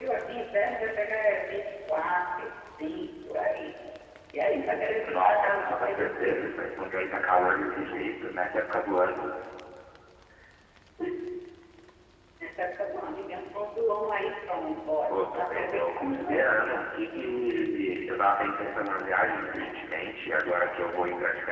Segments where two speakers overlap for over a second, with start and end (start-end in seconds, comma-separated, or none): 5.0-6.5, 15.1-16.6